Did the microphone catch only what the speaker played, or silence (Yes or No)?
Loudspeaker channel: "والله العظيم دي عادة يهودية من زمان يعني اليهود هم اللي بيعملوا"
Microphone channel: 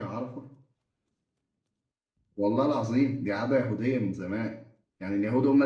Yes